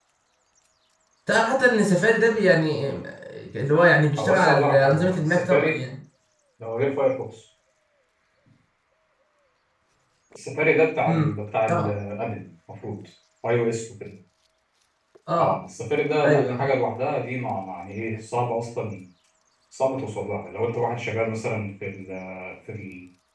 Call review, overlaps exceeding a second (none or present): present